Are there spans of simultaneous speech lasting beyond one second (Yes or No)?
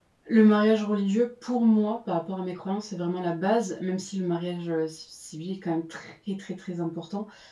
No